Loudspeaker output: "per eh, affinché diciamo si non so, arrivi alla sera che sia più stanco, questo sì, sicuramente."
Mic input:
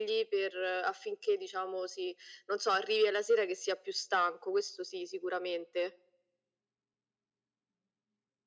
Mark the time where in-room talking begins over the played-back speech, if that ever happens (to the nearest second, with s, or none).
none